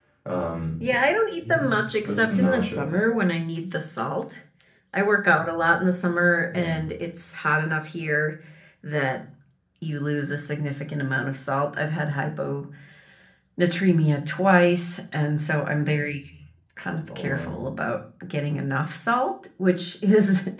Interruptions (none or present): present